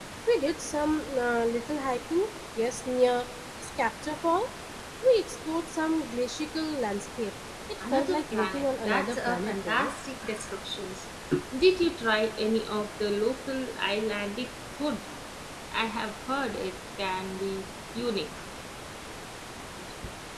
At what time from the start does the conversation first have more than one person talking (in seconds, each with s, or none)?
7.8 s